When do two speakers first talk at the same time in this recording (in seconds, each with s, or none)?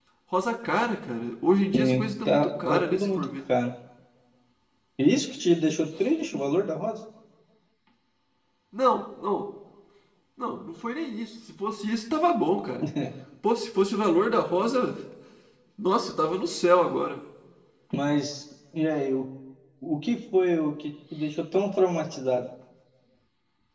1.7 s